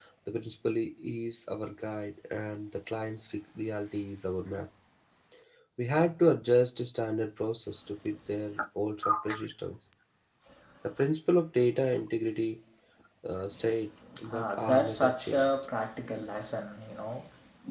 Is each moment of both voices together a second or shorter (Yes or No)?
No